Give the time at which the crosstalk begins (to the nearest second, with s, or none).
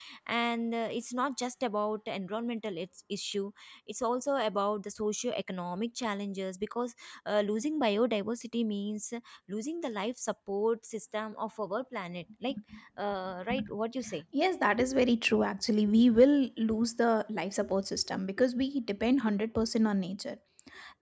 none